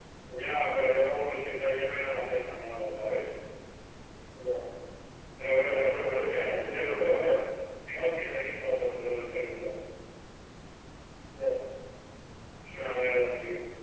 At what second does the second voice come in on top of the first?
6 s

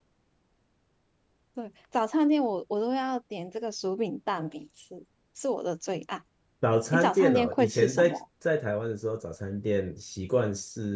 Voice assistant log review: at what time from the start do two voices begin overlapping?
7 s

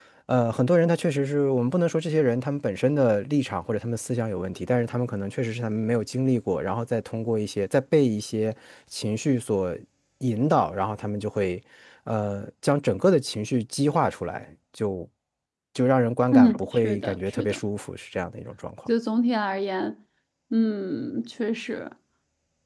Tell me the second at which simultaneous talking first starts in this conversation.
16 s

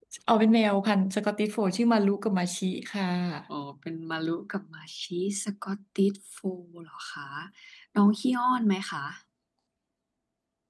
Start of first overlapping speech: none

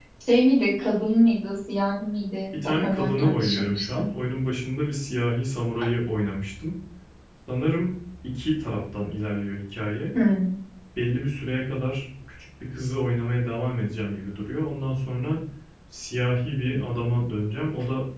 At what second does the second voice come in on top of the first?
3 s

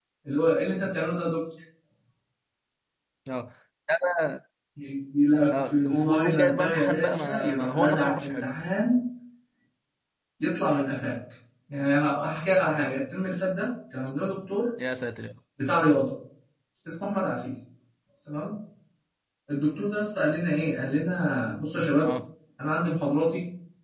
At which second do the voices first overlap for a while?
6 s

